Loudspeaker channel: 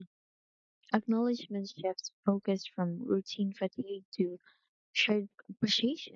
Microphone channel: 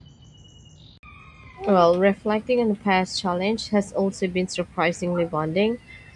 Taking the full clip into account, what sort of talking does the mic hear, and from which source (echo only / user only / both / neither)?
user only